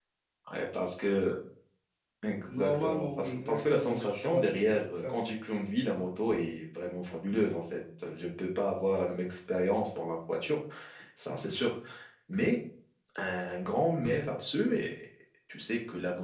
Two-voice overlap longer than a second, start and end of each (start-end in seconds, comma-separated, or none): 2.5-5.1